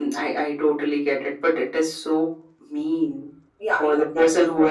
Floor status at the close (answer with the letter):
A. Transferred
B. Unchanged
A